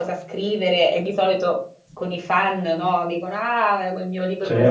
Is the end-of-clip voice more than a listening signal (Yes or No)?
Yes